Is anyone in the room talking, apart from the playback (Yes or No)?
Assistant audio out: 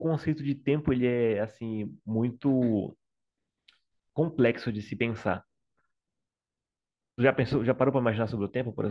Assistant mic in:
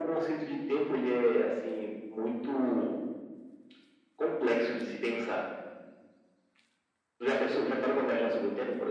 No